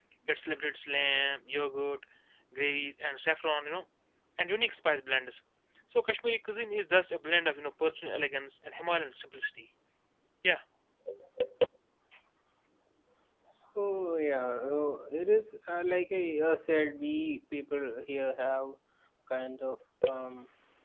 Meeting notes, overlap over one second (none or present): none